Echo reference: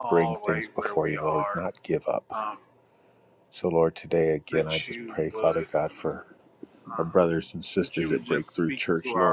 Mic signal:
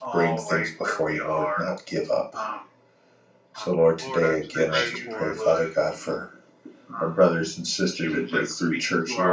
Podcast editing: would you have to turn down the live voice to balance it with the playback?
No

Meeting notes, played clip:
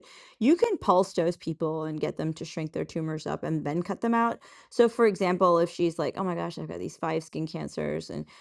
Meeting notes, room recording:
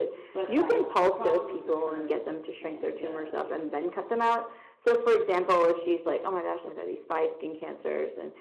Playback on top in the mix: Yes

